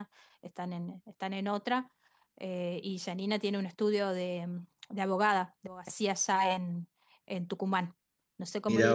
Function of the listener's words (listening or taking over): listening